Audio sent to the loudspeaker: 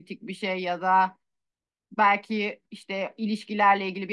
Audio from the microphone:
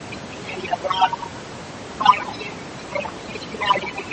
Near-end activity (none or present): none